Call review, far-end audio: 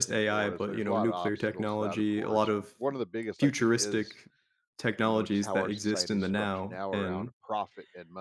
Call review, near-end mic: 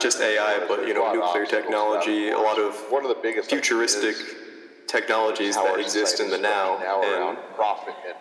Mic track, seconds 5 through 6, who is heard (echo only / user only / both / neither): echo only